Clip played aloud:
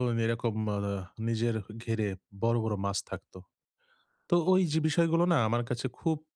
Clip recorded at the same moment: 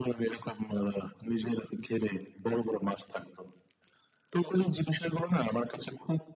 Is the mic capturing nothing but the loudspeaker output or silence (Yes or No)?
Yes